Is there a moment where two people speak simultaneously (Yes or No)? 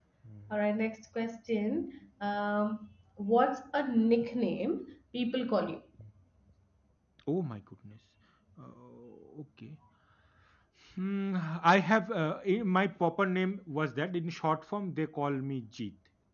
No